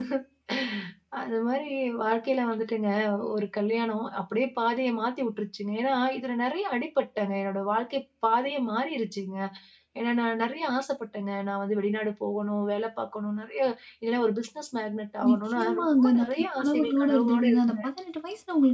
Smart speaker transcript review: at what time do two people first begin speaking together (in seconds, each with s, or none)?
15.2 s